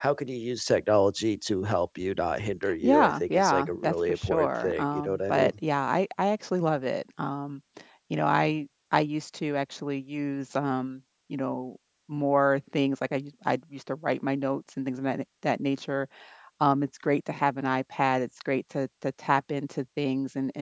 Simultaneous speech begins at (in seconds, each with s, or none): 2.8 s